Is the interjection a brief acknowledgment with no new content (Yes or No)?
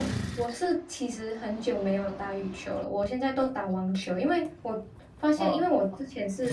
Yes